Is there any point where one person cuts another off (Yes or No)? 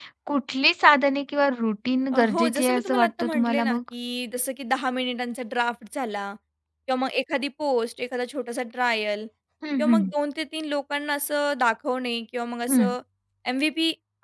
Yes